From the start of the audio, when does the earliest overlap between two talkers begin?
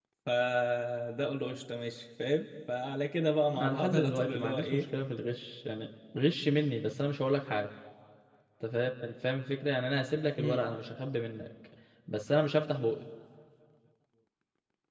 3.5 s

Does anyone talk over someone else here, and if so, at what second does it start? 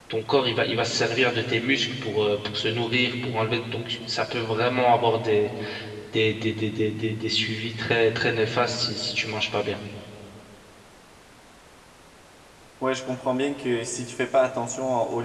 none

